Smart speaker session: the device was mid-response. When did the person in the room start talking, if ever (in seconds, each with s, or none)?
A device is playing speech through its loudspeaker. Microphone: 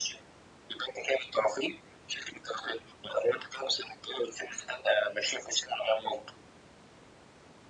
none